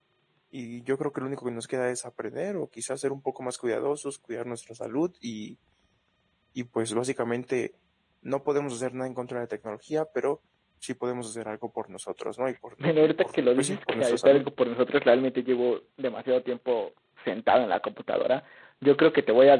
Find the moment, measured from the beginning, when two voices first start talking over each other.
12.8 s

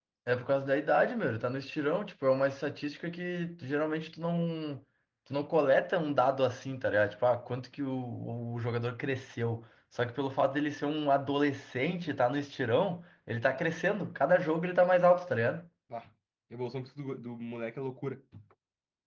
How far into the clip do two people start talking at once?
none

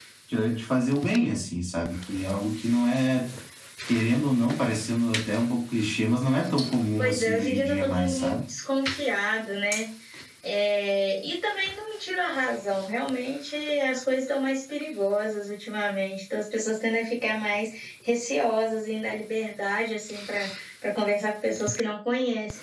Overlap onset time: 7.0 s

